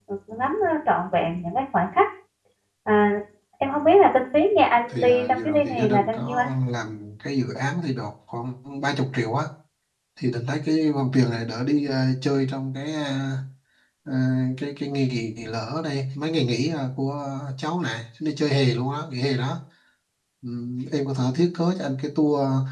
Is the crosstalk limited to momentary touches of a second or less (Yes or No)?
No